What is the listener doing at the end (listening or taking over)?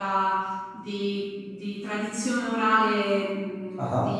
listening